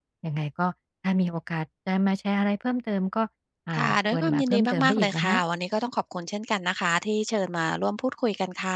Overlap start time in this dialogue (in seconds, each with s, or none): 3.8 s